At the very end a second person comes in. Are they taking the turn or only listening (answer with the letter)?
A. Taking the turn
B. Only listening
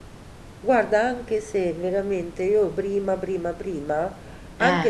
B